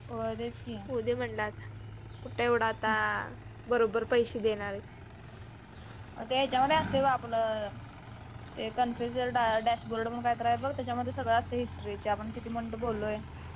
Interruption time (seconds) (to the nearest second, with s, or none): none